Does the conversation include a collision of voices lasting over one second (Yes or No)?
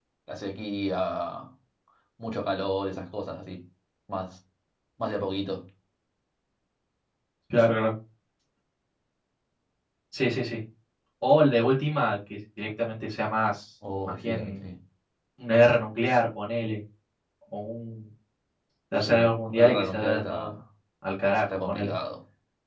Yes